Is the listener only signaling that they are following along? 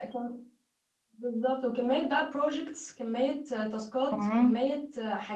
Yes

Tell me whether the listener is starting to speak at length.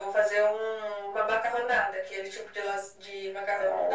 Yes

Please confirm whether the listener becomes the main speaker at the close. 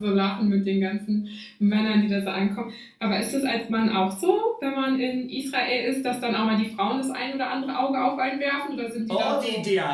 Yes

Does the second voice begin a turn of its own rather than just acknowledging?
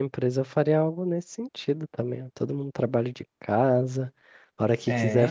No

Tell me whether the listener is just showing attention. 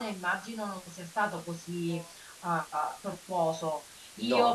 Yes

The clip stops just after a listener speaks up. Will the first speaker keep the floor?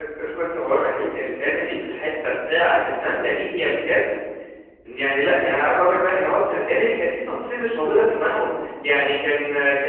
Yes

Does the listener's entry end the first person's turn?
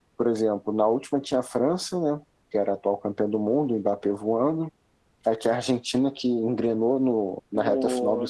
Yes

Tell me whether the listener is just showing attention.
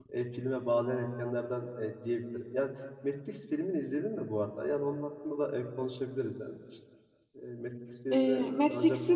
No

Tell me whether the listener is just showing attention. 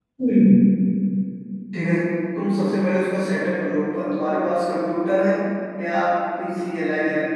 Yes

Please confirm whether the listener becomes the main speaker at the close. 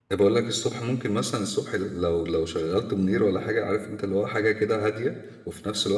No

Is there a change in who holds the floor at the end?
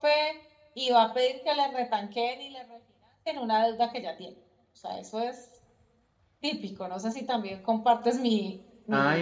Yes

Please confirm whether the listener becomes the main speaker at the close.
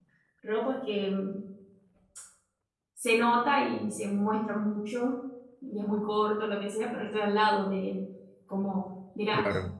No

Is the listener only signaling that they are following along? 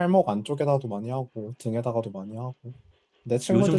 No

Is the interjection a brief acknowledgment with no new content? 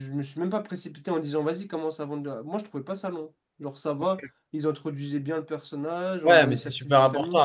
No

